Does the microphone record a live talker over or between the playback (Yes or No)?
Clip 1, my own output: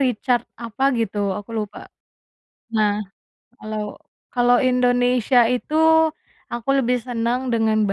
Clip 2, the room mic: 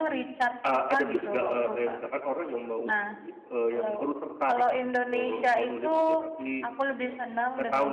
Yes